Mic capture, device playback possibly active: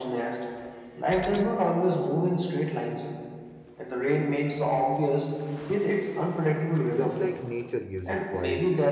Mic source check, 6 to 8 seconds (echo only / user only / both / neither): both